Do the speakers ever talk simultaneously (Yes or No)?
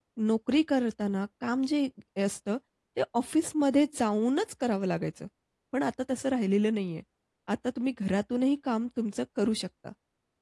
No